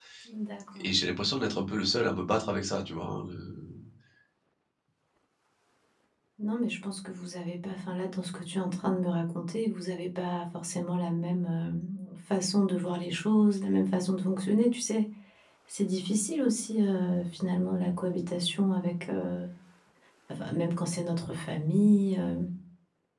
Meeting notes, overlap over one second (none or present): none